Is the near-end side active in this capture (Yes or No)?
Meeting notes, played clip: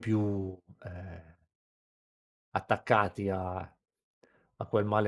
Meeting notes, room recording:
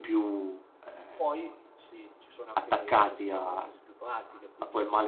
Yes